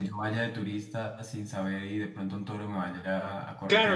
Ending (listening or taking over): taking over